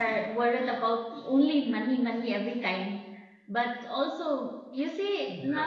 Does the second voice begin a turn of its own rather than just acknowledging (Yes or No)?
No